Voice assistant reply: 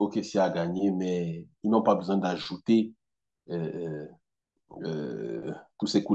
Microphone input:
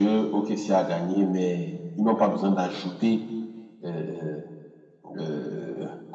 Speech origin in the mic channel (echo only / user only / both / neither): echo only